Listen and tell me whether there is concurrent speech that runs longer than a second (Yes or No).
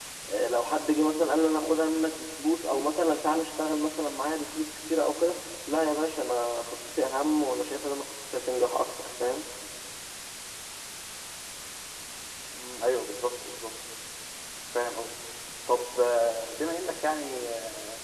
No